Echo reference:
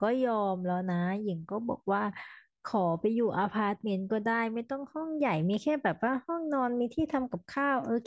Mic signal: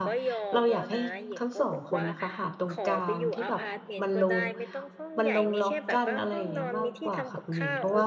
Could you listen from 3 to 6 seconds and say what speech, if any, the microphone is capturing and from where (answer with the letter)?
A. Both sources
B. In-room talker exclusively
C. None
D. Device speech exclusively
A